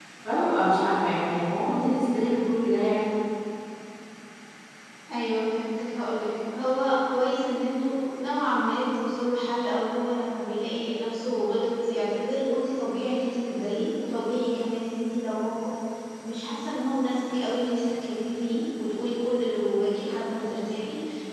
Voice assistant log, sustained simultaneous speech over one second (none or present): none